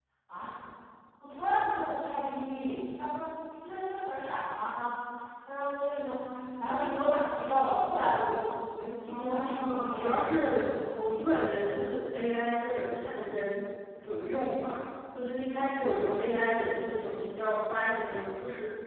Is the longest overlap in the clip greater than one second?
Yes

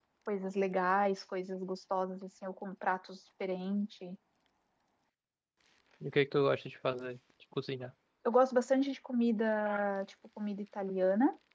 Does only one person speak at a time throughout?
Yes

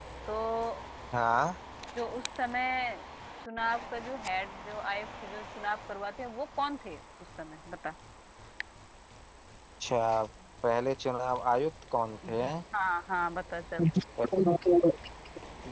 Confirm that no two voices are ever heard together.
Yes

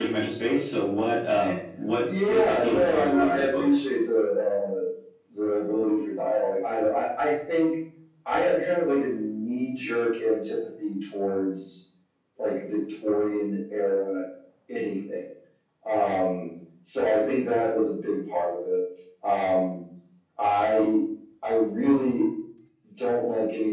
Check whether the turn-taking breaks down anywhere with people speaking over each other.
Yes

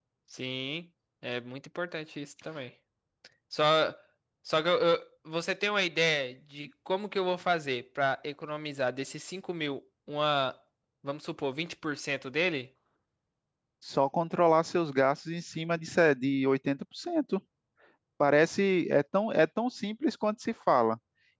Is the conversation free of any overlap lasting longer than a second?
Yes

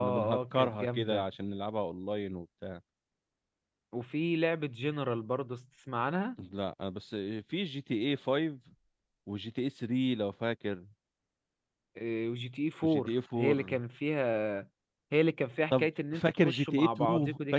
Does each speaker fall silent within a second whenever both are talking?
No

